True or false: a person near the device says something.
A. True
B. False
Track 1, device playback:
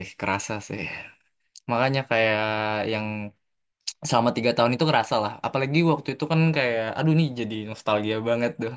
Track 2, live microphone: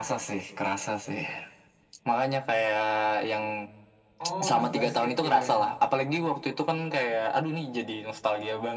A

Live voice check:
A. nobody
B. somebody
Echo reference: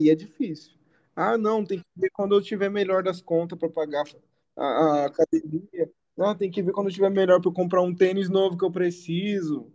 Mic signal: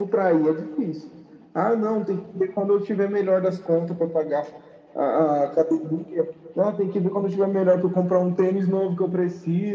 A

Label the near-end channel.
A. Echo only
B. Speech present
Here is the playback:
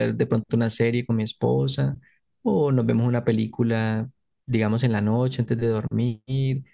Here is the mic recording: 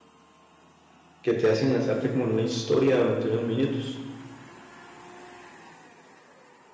B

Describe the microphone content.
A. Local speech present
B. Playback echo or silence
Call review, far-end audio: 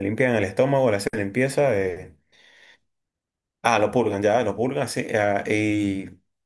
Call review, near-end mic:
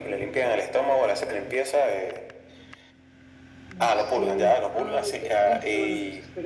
A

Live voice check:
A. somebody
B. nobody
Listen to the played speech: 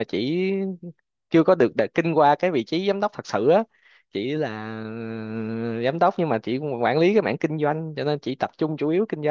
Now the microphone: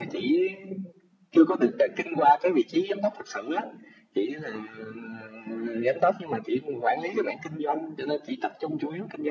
B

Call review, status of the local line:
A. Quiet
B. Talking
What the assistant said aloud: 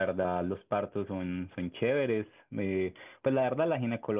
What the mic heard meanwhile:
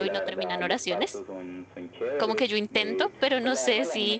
B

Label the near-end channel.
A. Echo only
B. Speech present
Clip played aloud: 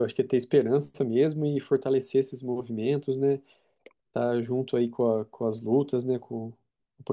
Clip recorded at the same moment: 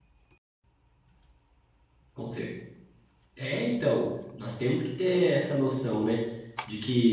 B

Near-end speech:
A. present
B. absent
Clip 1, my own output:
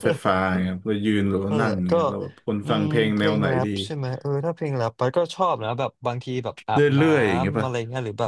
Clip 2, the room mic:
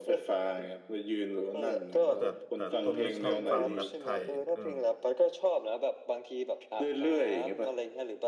A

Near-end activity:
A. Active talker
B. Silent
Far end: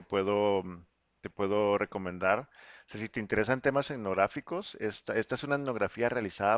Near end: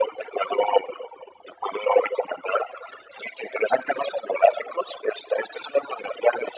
B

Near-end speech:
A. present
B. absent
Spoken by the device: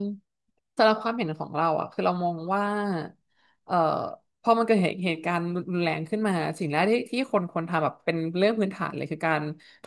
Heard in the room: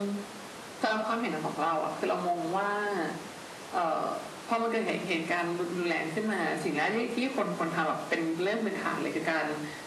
B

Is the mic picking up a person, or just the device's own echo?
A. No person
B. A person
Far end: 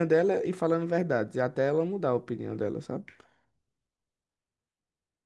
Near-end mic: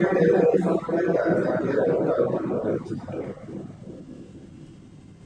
A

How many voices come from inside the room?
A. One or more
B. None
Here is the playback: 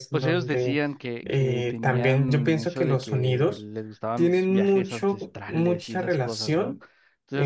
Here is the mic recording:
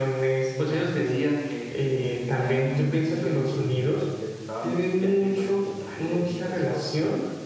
B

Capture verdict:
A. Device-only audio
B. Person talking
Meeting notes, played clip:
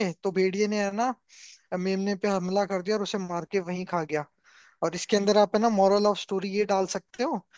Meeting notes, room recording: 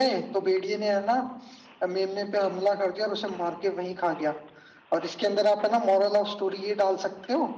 A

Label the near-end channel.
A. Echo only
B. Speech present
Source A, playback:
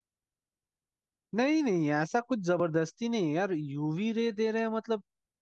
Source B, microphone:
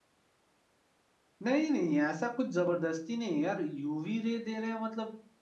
A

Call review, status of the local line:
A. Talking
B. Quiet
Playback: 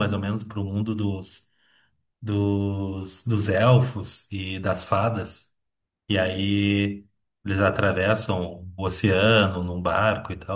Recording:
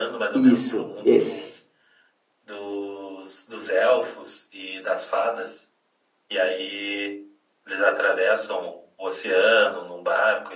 A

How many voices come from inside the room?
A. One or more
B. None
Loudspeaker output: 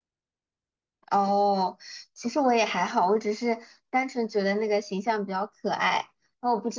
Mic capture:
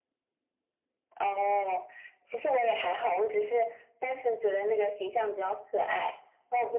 B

